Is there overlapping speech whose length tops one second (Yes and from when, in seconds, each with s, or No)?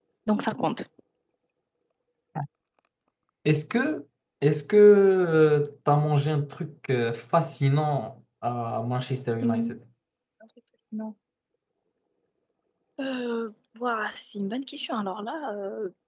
No